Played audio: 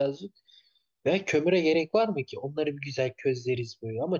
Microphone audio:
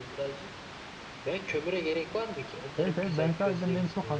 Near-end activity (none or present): present